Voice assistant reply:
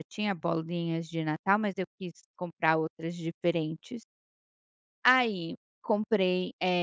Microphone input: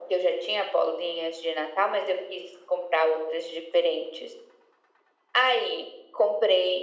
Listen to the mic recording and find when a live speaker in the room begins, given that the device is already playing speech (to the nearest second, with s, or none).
none